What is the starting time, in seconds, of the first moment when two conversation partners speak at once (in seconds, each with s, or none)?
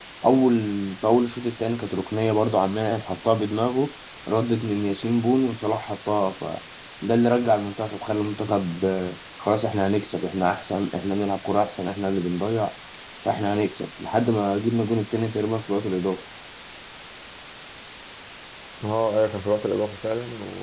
none